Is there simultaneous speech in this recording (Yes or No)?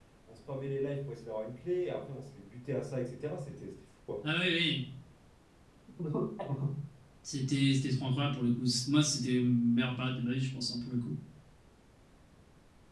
No